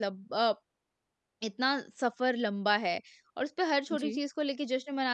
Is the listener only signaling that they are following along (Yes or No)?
Yes